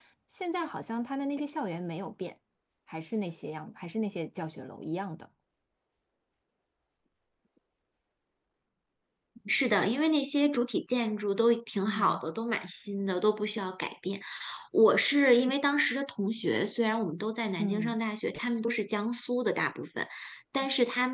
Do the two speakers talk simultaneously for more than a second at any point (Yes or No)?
No